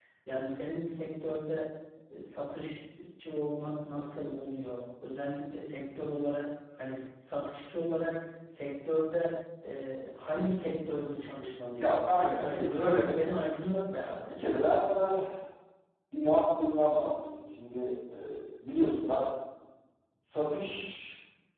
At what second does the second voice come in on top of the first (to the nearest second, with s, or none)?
12 s